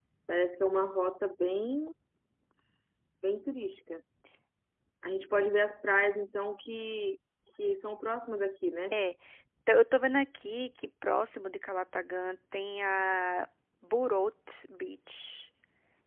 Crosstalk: none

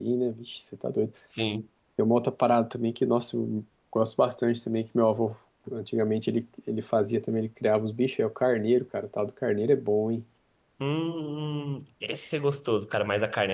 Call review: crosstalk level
none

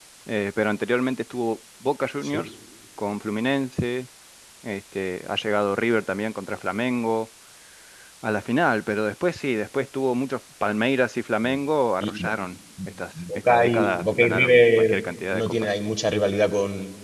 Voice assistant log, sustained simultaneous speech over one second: present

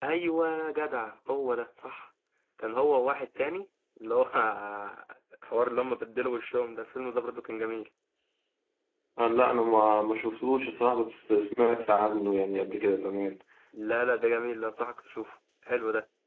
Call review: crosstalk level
none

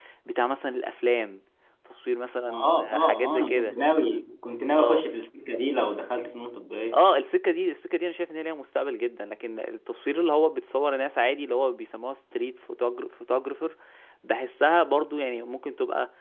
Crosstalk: present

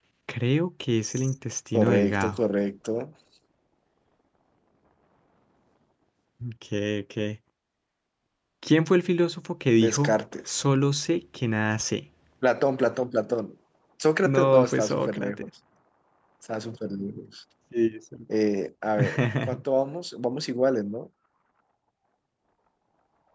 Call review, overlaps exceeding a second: present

